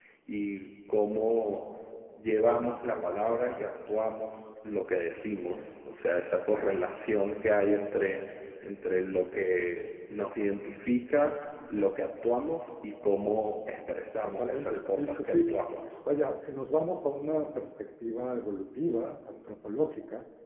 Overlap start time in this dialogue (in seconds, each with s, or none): 14.2 s